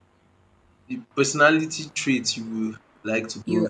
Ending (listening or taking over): taking over